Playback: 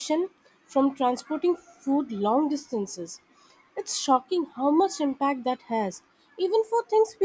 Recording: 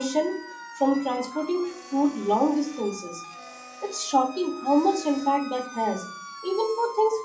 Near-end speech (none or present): none